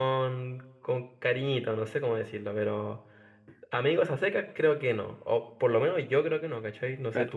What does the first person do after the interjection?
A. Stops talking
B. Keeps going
A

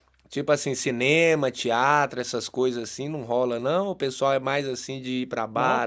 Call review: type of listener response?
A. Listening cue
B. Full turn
B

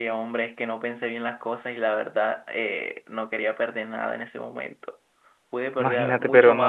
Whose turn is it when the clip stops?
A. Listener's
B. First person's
A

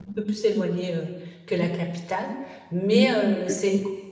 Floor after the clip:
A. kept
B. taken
A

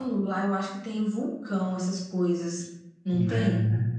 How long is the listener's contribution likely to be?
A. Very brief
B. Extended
B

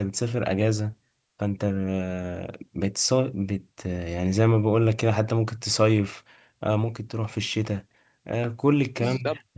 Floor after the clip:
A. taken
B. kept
A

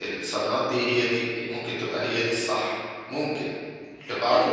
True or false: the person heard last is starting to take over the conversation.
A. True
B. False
A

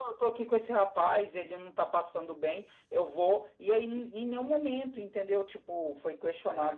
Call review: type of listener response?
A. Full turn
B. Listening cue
B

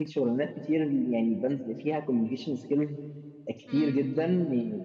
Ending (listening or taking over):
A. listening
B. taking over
A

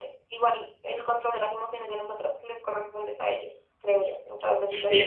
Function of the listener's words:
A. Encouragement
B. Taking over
B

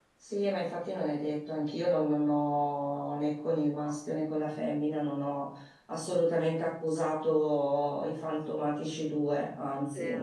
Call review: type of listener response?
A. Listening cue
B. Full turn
A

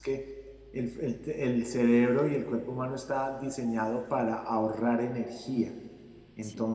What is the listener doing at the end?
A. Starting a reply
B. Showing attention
B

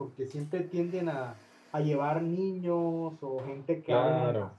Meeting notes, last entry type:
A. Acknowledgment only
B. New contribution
A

